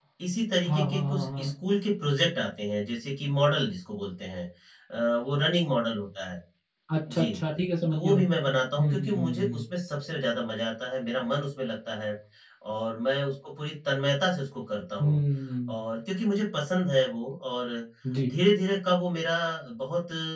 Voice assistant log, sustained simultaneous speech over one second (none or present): present